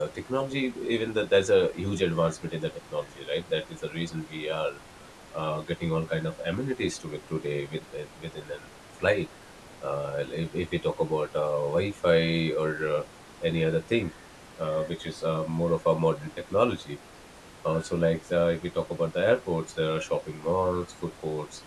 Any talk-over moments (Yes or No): No